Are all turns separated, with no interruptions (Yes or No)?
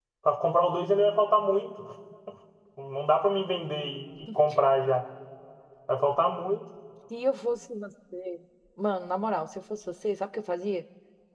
Yes